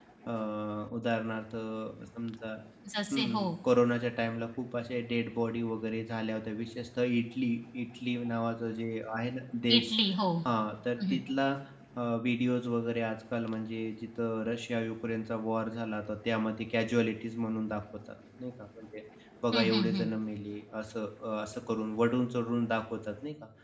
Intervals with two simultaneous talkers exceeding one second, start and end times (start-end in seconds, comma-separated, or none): none